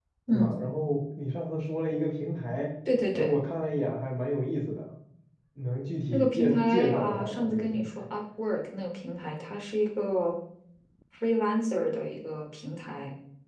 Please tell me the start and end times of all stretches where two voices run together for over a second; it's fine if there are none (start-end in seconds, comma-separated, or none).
6.1-7.8